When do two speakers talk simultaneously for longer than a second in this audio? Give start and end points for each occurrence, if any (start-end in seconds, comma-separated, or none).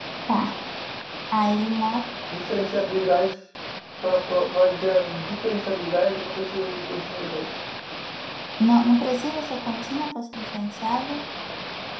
none